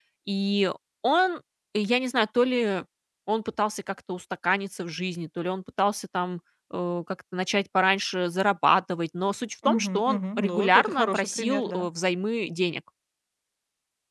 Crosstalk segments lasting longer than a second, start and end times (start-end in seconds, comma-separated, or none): 9.7-11.9